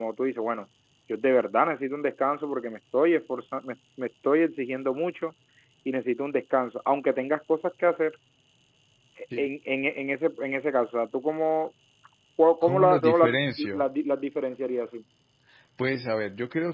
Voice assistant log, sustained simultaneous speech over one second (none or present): present